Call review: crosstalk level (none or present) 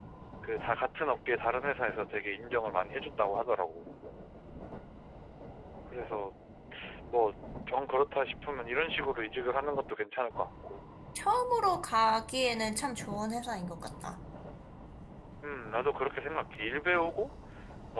none